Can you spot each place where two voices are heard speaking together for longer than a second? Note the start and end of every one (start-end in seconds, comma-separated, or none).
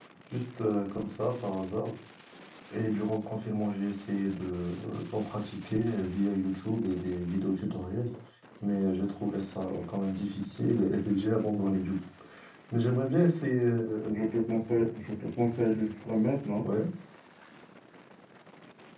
none